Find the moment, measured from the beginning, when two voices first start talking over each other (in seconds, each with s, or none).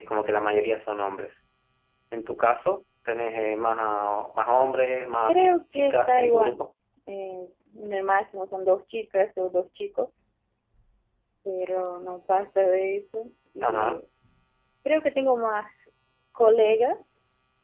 5.3 s